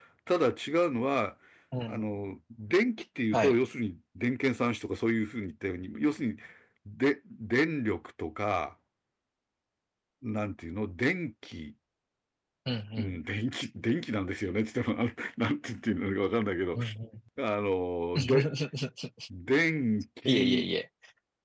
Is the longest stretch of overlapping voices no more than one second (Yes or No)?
Yes